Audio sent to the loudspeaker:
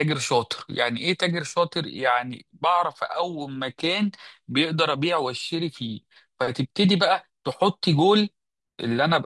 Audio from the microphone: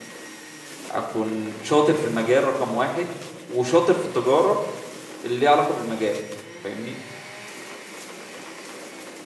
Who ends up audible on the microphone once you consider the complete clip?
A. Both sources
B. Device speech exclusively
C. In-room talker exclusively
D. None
C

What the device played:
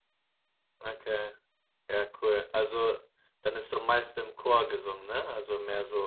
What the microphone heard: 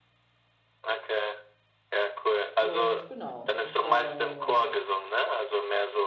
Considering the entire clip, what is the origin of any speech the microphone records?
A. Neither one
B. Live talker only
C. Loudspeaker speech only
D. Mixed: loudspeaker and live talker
D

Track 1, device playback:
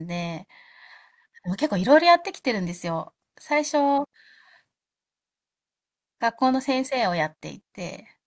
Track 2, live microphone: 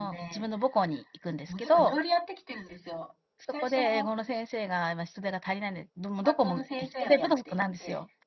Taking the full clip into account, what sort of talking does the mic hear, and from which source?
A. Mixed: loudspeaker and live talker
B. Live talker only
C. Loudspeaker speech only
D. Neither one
A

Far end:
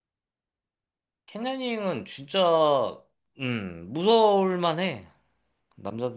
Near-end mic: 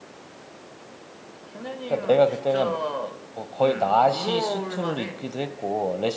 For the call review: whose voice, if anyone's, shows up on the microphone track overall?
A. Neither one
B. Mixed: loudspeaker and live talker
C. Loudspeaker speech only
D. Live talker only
B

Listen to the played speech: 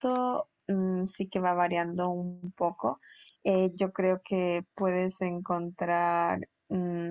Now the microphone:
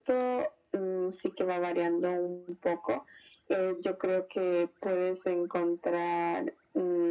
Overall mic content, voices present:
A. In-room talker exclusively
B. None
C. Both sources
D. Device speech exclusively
D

